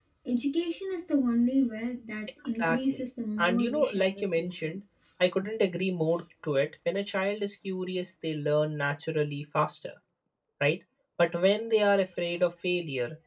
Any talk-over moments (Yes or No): Yes